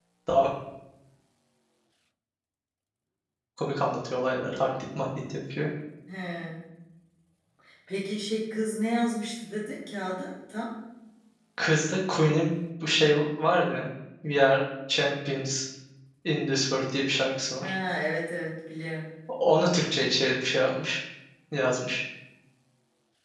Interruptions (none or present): none